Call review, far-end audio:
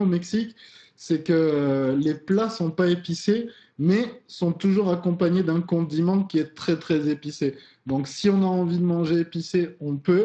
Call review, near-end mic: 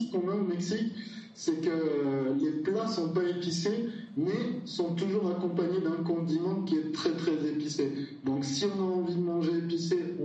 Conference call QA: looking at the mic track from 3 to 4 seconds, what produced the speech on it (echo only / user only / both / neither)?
echo only